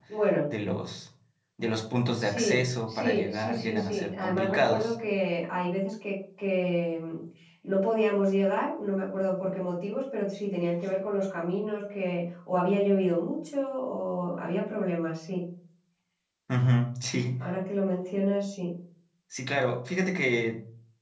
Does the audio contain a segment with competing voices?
Yes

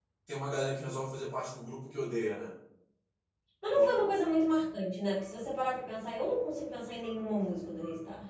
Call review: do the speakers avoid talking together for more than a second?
Yes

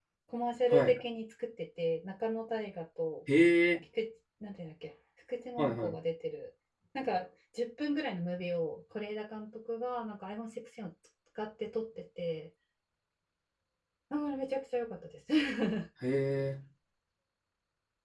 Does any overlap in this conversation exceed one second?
No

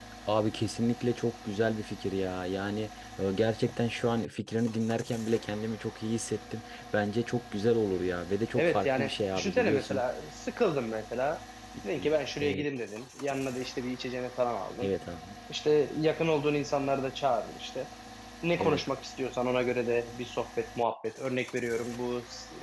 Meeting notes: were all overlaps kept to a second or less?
No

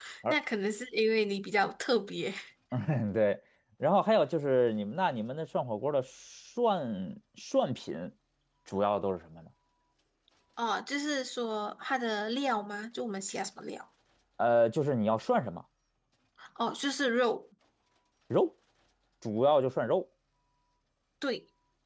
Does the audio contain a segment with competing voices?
No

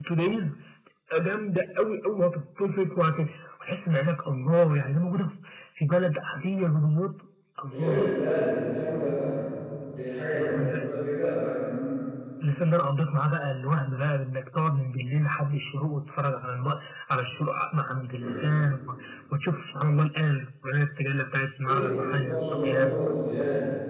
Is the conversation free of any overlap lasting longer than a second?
No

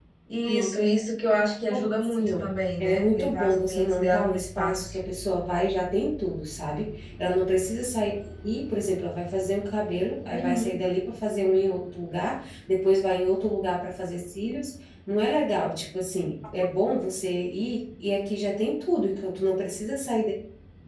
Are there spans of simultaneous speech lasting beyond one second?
Yes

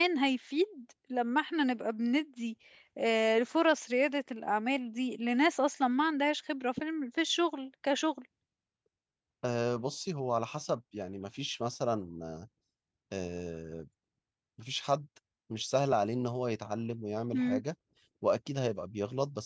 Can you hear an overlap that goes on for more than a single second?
No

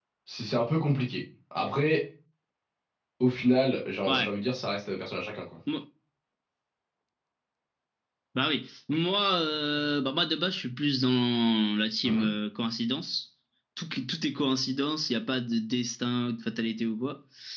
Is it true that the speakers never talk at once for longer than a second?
Yes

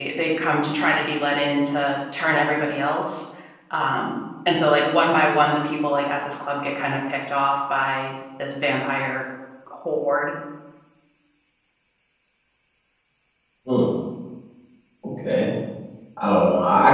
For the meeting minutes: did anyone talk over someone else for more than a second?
No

